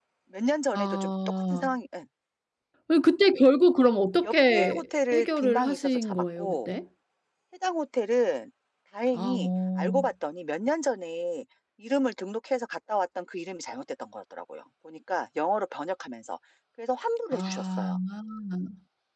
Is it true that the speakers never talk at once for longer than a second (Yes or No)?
No